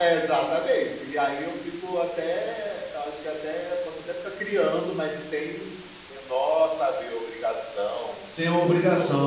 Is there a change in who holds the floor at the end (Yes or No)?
Yes